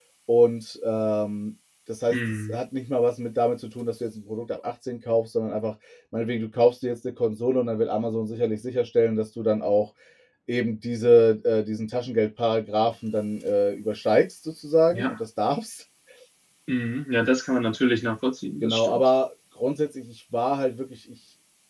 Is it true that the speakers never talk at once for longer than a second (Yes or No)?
Yes